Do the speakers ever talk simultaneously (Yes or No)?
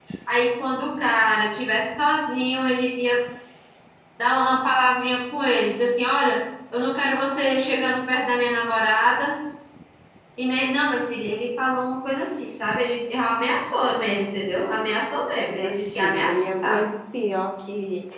Yes